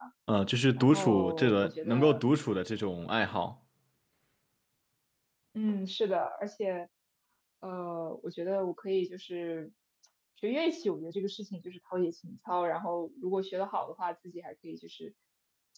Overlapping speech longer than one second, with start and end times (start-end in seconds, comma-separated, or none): 0.8-2.2